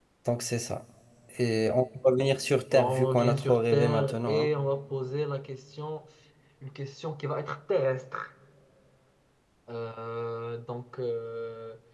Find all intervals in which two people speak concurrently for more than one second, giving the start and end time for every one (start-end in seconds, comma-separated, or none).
2.7-4.5